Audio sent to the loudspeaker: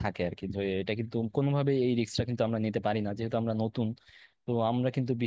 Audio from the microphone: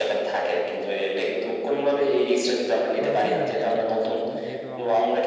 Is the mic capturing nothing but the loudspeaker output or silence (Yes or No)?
No